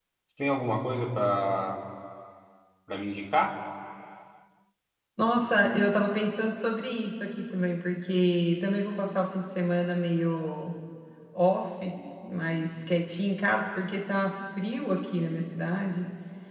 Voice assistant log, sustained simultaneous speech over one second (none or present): none